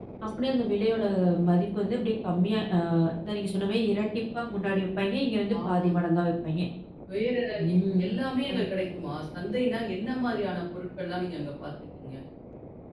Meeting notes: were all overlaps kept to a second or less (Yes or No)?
Yes